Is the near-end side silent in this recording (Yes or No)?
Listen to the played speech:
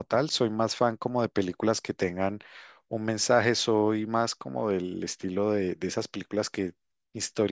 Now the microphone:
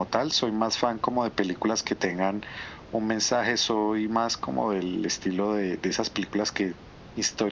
Yes